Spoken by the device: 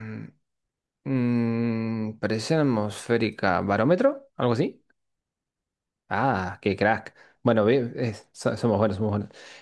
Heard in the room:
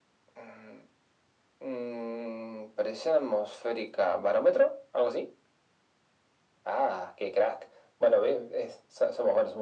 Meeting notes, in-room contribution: none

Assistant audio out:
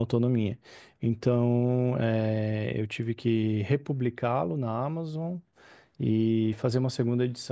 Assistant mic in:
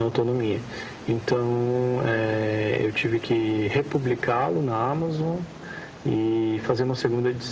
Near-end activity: none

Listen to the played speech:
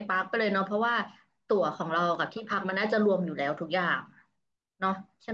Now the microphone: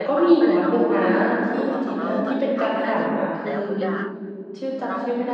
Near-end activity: present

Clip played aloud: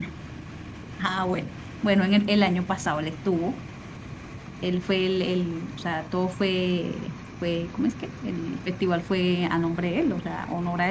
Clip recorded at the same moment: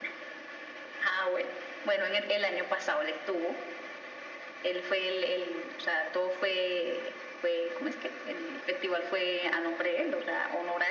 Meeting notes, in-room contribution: none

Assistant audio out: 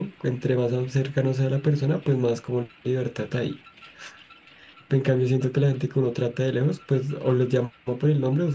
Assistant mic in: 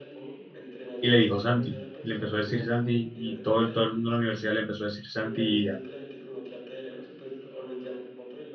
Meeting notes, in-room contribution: present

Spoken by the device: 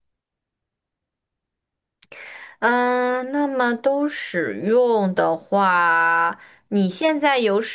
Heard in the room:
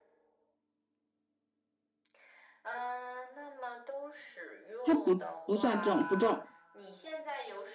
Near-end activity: present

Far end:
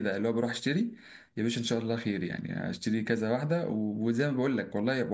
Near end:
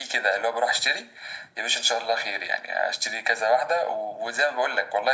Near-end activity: none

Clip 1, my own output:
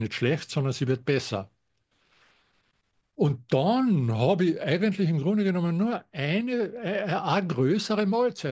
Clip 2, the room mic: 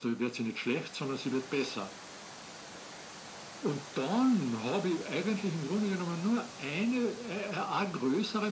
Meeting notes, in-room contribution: none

